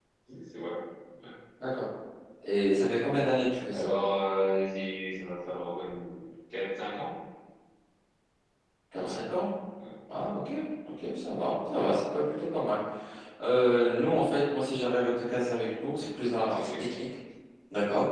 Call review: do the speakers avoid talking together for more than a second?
Yes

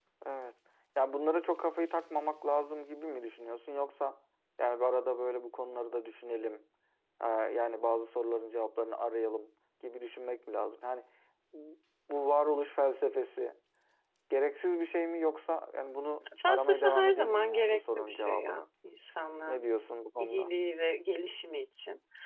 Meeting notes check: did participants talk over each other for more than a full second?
Yes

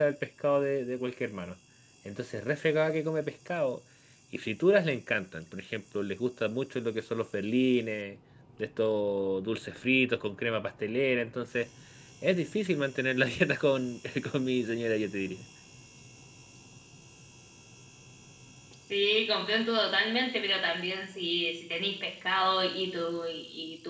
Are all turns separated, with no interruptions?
Yes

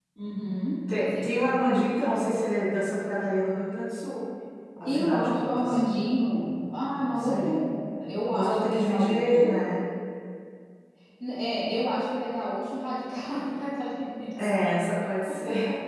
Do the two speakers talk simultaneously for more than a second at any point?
Yes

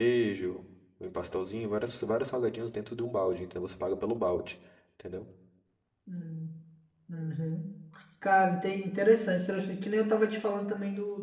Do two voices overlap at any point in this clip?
No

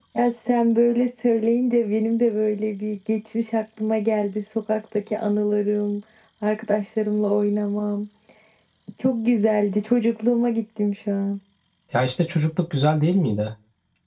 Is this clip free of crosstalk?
Yes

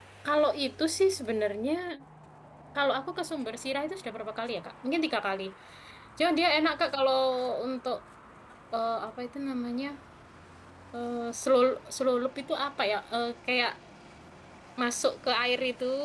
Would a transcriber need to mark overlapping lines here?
No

